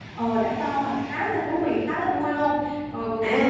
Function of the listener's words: taking over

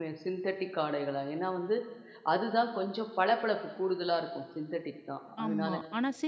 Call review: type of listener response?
taking over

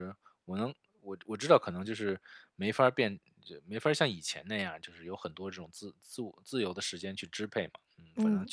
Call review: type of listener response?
listening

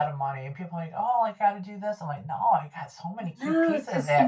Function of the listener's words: taking over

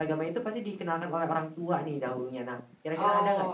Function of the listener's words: taking over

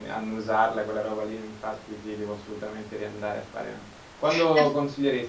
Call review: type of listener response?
listening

